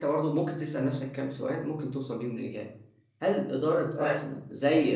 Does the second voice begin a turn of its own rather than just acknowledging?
No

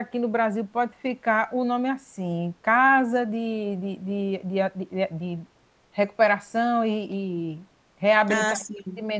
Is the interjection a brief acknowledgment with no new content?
Yes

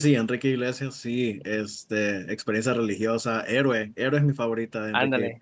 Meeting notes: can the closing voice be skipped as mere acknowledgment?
No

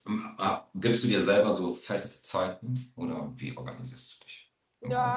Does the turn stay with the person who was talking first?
No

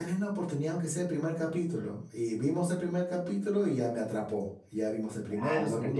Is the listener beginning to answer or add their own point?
Yes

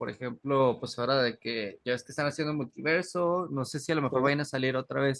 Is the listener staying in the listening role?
Yes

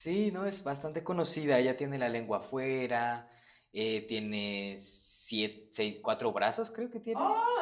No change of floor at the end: No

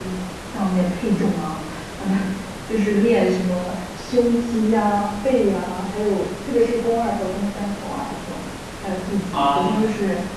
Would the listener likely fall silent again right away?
Yes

